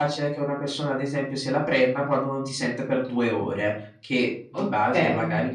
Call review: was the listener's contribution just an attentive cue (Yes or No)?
Yes